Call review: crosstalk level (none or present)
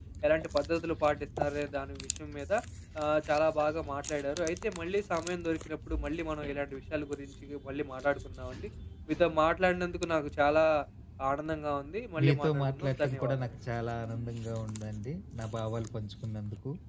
present